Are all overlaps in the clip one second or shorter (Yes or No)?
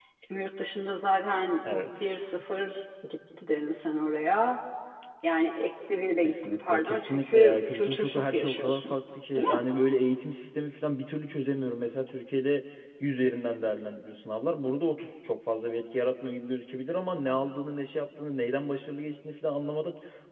No